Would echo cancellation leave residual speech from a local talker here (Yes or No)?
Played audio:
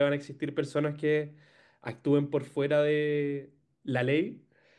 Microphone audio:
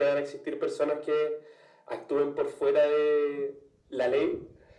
No